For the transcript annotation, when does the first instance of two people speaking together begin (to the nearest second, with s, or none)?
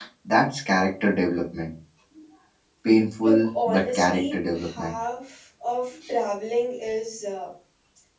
3 s